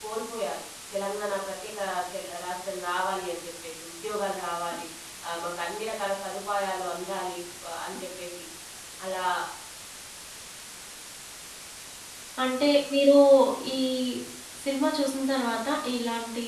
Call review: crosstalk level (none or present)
none